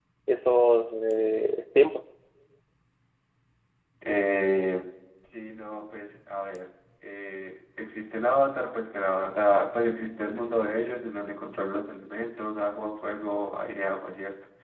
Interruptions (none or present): none